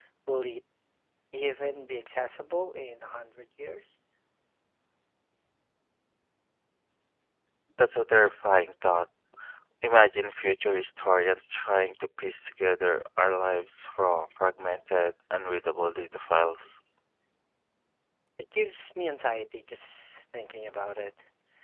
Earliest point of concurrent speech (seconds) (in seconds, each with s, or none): none